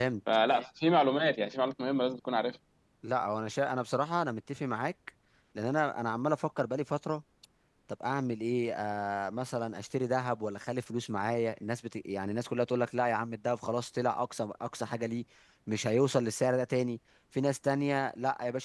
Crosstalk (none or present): none